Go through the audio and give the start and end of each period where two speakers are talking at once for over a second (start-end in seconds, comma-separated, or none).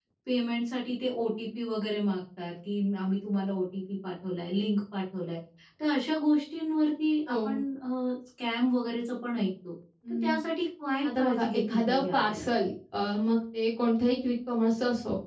11.2-12.4